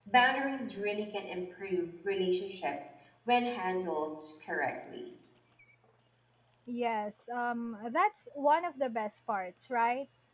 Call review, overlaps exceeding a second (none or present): none